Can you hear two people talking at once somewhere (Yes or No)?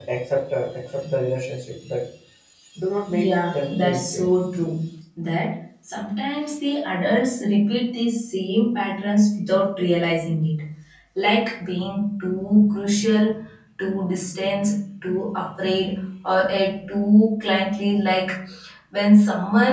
Yes